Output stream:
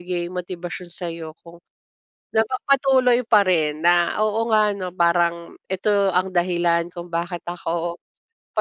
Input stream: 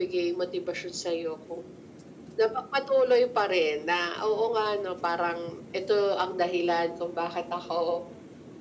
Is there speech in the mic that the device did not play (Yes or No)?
No